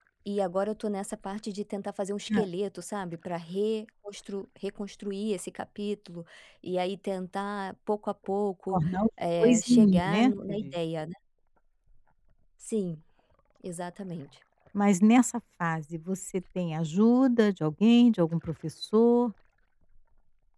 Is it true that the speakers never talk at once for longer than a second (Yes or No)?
No